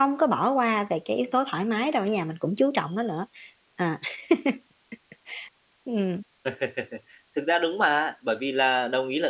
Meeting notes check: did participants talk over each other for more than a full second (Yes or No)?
No